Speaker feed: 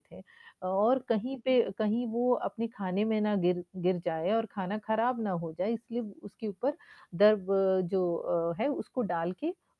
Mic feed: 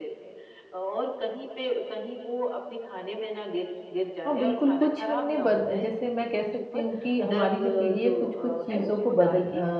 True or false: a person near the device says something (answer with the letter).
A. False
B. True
B